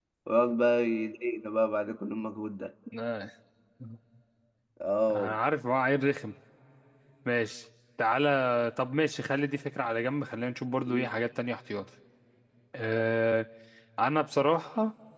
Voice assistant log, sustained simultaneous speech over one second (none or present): none